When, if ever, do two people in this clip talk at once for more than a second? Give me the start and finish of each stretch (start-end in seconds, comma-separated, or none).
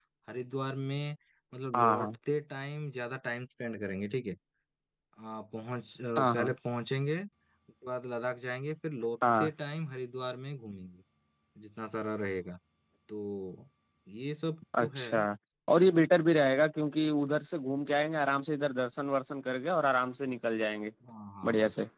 none